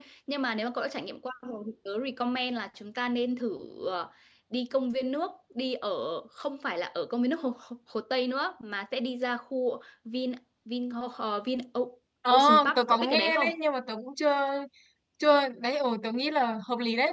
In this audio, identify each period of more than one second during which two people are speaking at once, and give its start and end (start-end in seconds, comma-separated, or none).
12.3-13.5